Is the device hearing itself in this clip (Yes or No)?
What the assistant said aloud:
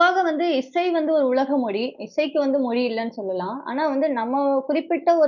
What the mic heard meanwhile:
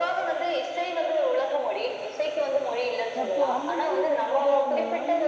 Yes